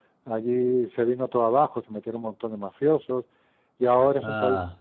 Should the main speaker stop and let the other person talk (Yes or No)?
No